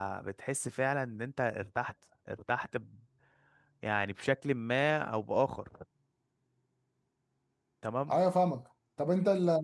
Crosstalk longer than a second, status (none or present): none